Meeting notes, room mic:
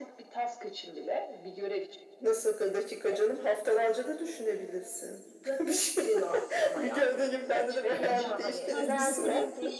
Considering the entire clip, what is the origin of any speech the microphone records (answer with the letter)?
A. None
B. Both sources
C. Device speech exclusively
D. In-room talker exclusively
B